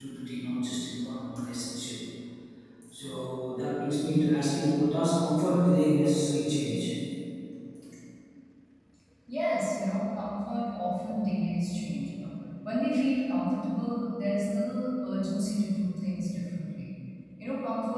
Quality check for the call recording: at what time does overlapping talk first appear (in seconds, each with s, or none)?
none